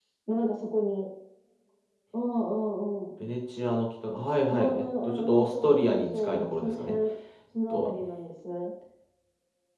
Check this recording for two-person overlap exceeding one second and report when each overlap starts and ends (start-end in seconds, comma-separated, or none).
4.5-7.0